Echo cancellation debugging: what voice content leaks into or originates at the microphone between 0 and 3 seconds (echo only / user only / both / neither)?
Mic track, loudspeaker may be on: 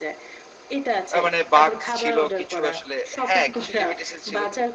both